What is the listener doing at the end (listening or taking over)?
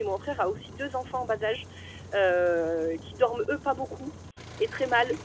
listening